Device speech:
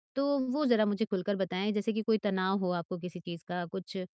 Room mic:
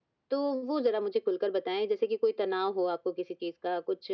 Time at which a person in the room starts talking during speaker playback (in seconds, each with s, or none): none